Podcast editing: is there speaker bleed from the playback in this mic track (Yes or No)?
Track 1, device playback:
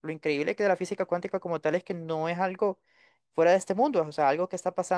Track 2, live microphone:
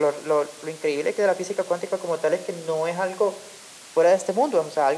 Yes